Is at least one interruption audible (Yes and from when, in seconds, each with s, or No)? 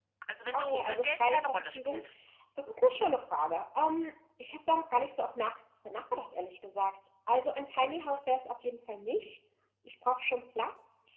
Yes, from 0.5 s